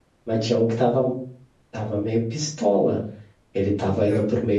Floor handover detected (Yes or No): No